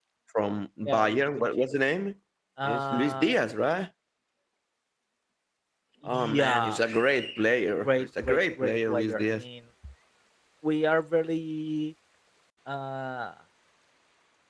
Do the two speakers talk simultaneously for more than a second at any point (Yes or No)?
Yes